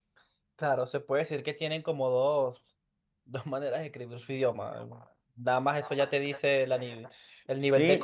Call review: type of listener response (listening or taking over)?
taking over